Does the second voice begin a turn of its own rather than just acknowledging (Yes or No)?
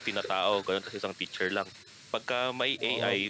No